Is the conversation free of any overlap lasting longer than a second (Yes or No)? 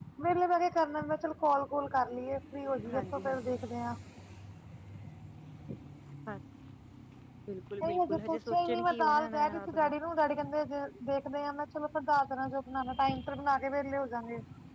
No